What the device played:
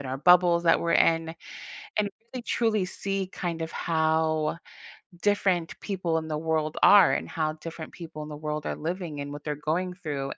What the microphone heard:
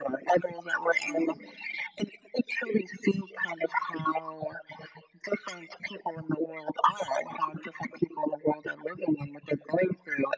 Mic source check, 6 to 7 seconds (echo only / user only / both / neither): echo only